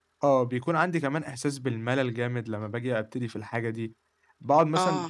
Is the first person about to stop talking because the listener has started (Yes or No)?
No